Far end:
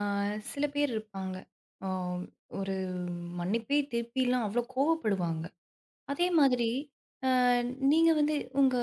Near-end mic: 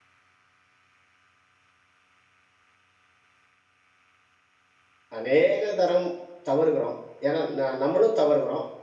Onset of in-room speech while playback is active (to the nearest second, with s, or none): 5 s